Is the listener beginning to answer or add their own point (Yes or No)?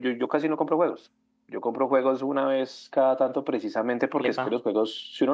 No